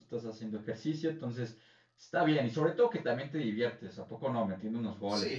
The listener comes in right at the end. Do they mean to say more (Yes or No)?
Yes